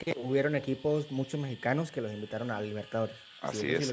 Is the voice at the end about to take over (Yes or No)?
Yes